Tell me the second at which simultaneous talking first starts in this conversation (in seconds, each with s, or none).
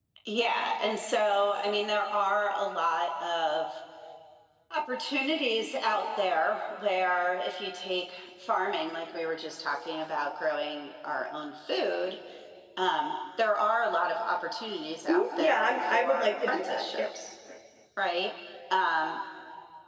15.1 s